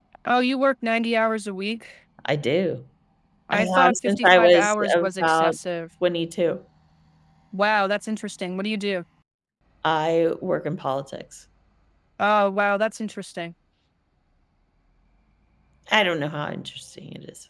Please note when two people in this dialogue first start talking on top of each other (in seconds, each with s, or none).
3.5 s